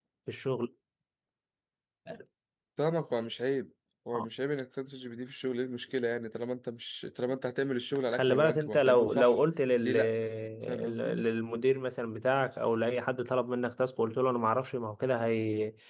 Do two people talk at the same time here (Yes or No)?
Yes